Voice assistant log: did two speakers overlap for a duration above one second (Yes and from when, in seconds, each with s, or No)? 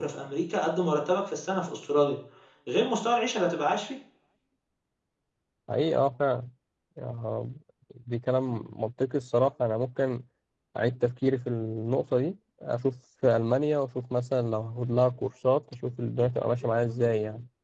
No